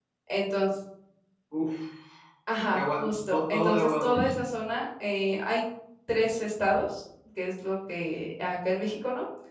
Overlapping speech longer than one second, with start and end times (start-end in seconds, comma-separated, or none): 2.7-4.4